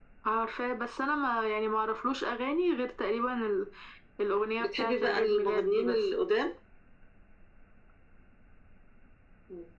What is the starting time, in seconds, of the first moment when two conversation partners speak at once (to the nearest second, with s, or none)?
5 s